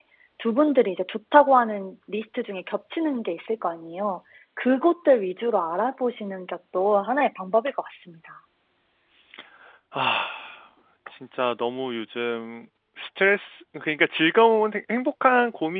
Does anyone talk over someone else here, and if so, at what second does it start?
none

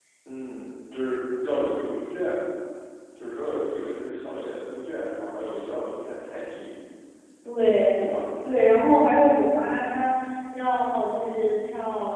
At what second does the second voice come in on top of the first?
none

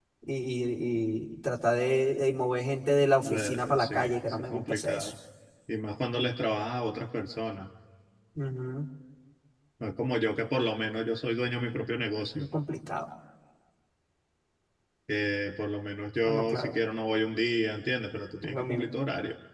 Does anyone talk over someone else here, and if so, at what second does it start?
3.2 s

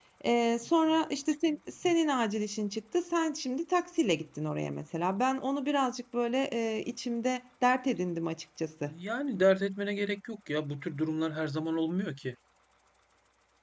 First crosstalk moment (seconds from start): none

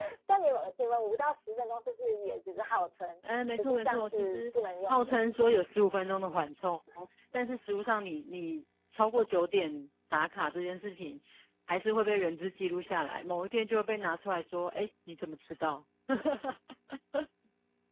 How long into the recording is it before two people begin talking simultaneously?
3.2 s

